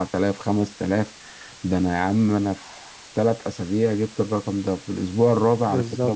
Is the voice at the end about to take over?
No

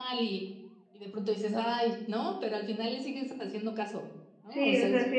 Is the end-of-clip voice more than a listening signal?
Yes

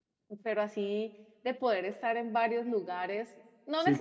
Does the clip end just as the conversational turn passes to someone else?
Yes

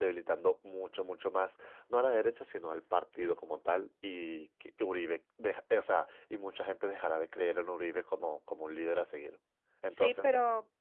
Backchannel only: No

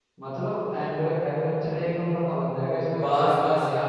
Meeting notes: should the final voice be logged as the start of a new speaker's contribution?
Yes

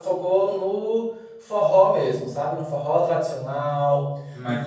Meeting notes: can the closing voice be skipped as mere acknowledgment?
Yes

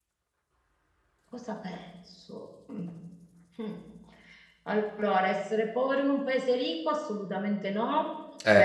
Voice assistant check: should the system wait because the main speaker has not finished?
Yes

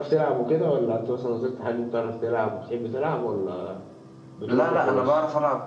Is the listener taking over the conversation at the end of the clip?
Yes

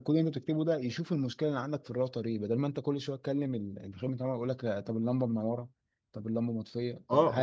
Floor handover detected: Yes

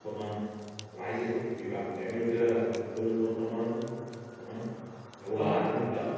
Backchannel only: Yes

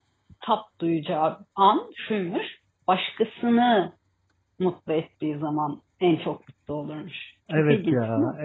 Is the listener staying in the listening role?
No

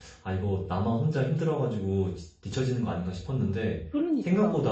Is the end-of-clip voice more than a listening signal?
No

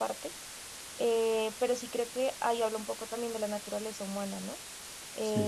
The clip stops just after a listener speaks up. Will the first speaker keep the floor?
Yes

